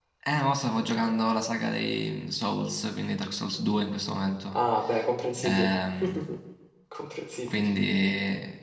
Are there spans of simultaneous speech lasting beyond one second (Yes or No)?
No